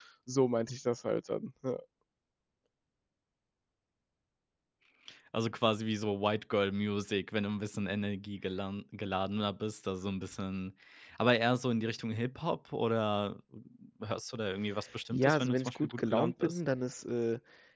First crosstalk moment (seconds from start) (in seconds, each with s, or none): 15.1 s